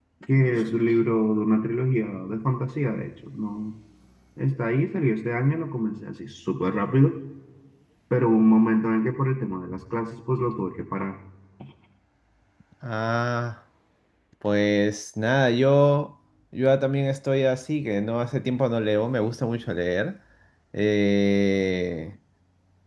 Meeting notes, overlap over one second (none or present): none